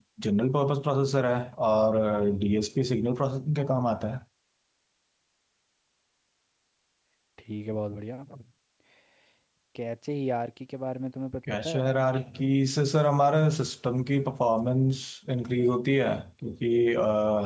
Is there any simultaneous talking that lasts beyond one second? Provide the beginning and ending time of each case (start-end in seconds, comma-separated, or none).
none